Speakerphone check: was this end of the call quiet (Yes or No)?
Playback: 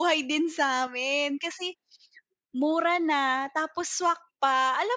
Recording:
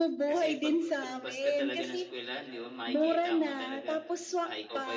No